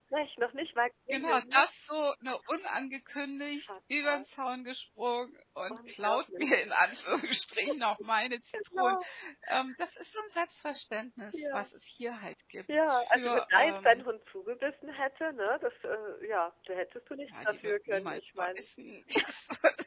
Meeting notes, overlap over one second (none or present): present